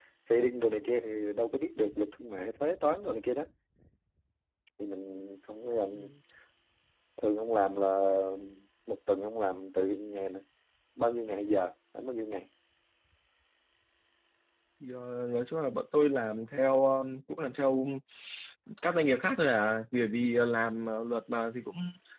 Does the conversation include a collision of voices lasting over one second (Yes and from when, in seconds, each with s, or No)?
No